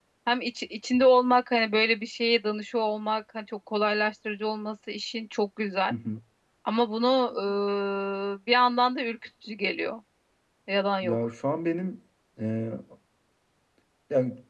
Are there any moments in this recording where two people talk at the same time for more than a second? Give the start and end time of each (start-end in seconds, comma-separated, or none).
none